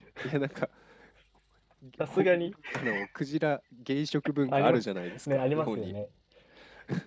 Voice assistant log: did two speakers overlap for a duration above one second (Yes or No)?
Yes